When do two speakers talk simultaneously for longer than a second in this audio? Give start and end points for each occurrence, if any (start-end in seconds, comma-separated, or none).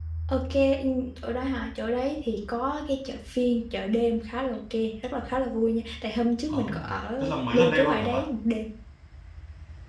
6.5-8.2